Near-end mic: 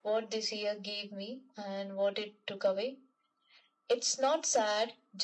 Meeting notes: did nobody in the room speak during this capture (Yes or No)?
Yes